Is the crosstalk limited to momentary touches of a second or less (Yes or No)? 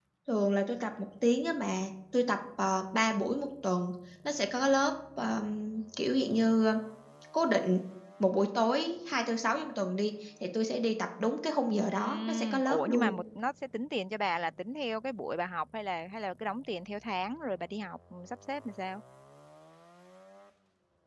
No